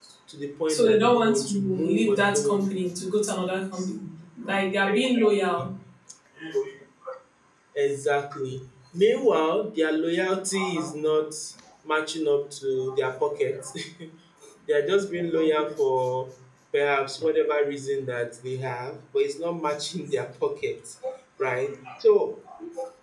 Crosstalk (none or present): present